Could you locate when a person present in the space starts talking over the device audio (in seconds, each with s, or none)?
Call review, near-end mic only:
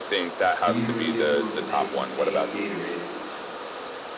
0.6 s